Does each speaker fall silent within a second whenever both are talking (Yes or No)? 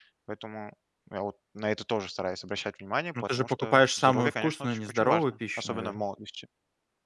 No